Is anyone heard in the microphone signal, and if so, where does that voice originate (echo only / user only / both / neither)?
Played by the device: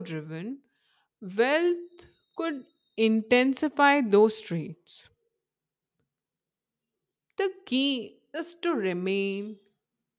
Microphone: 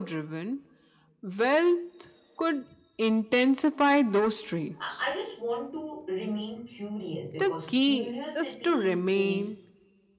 both